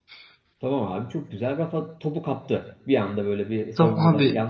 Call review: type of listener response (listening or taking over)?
taking over